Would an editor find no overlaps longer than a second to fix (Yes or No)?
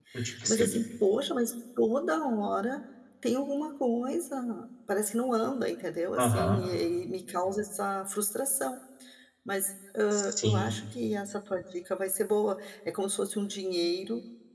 Yes